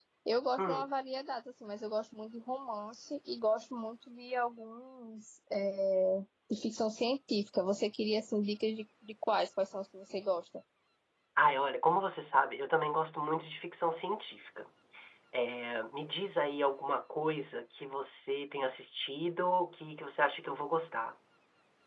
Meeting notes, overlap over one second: none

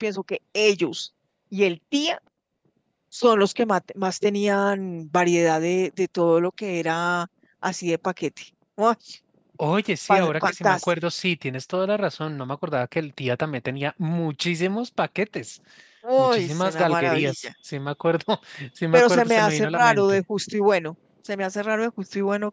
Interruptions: present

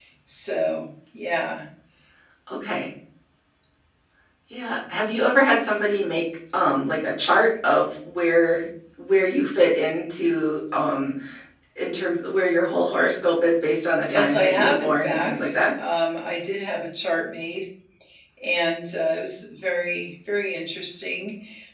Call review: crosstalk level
present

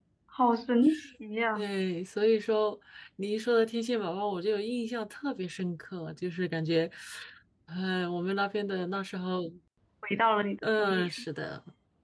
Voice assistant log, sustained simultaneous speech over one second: none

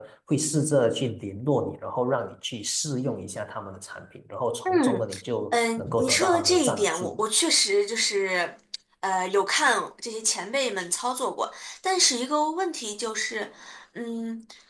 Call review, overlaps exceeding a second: present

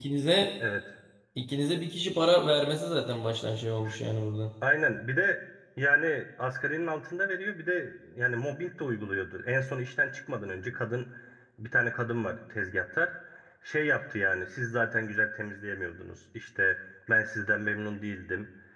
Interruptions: none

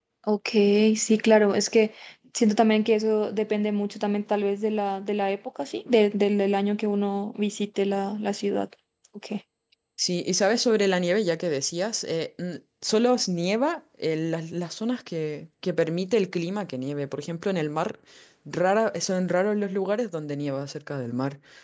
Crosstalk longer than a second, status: none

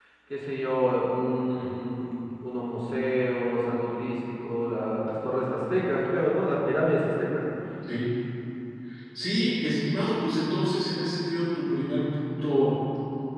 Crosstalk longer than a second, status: none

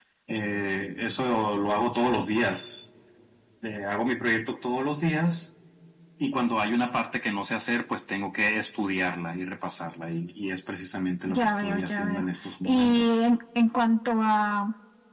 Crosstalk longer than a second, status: present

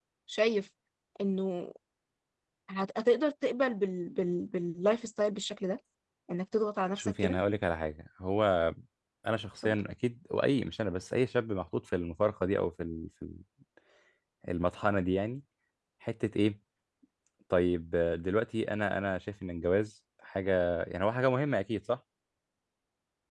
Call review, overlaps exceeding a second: none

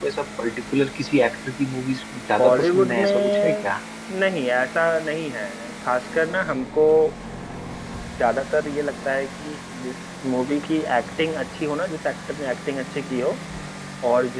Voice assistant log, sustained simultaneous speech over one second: present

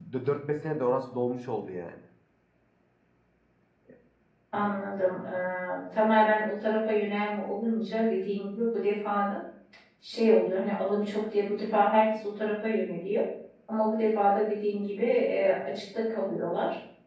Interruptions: none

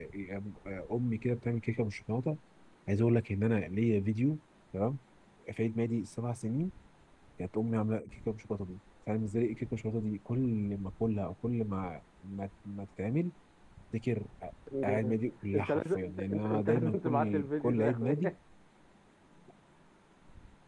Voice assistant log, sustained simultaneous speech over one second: present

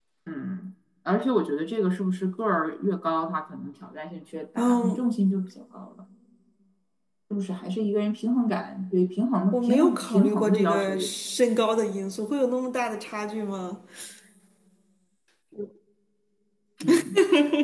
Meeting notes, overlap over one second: present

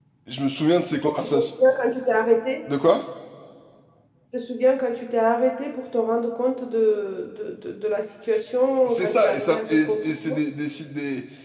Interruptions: present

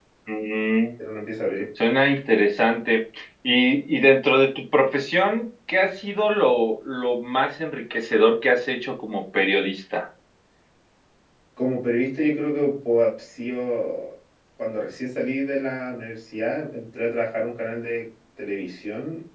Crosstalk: none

